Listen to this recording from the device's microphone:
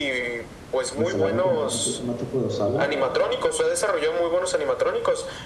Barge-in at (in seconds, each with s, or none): 0.9 s